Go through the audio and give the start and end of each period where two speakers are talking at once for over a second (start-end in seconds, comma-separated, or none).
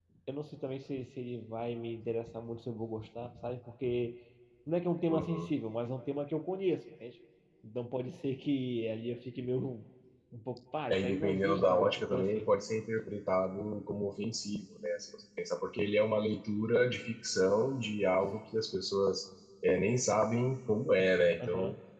10.9-12.5